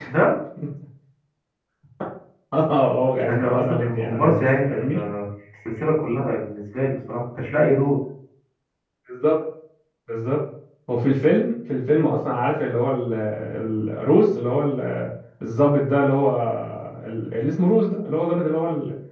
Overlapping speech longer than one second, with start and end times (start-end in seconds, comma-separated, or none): 3.2-5.0